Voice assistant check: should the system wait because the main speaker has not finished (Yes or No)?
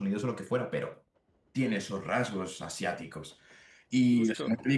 Yes